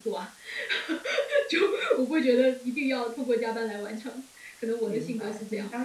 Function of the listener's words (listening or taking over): taking over